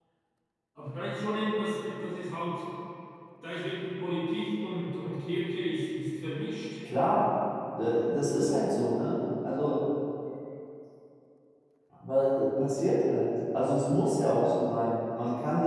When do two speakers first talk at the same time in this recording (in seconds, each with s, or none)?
none